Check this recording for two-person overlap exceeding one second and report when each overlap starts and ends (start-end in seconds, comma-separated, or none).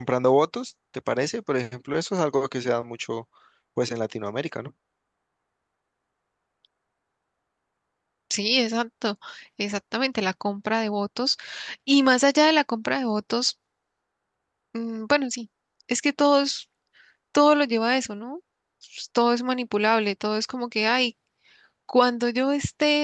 none